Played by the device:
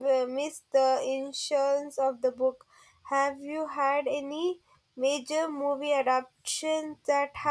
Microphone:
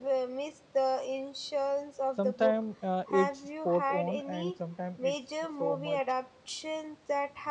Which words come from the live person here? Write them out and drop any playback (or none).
sometimes uh, it's spot on and sometimes it's so much